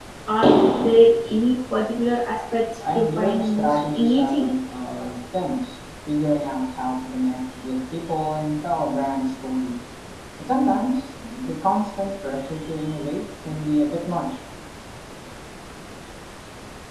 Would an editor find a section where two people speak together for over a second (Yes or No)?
Yes